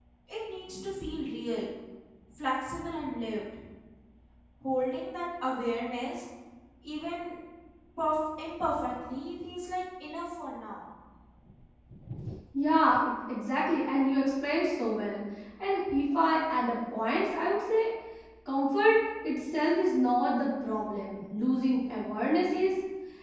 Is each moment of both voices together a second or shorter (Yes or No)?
Yes